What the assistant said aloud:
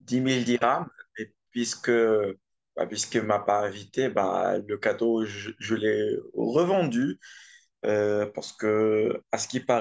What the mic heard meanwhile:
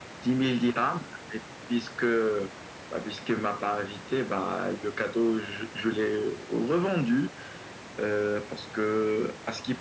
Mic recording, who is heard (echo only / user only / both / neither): echo only